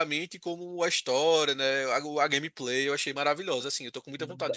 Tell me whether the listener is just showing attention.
No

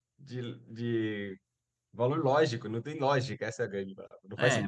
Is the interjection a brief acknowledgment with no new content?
No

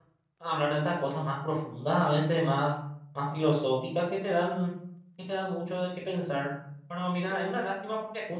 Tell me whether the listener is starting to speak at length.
No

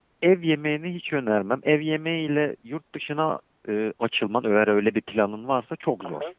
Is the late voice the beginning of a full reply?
Yes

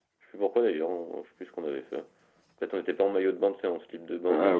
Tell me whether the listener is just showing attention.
No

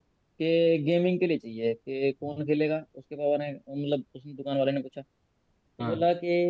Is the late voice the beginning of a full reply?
No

